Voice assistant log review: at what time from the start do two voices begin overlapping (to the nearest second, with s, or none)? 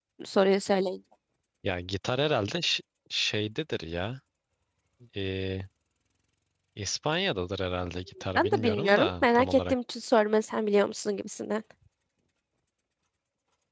8 s